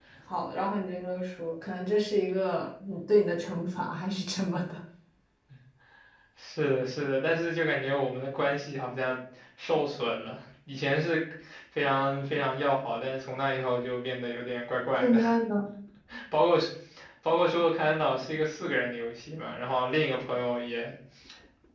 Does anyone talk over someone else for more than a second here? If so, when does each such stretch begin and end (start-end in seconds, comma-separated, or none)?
none